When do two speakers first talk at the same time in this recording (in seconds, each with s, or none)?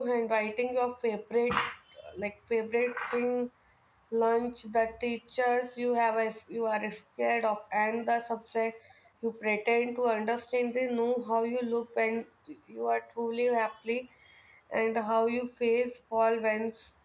none